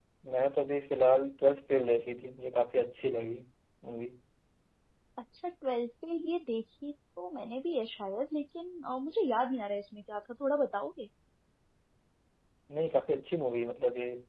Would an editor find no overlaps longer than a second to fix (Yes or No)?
Yes